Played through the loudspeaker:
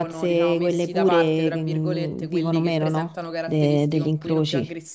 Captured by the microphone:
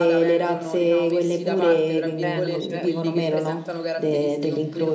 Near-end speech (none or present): present